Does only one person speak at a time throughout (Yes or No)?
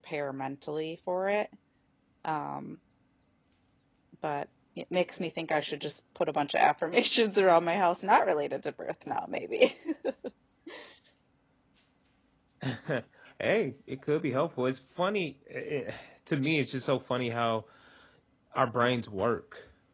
Yes